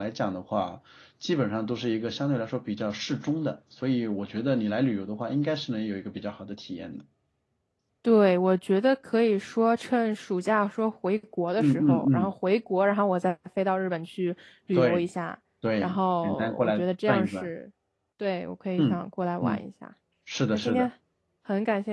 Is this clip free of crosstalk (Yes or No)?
No